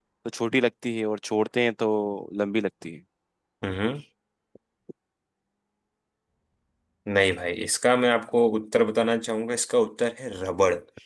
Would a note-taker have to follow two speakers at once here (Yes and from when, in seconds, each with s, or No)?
No